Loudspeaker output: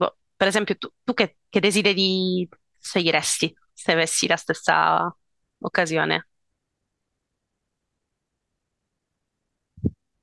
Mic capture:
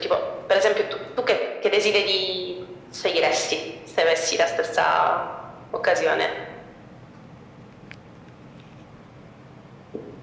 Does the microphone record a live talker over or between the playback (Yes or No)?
No